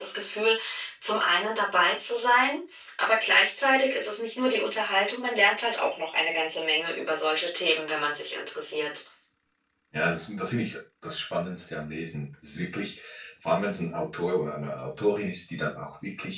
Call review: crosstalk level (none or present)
none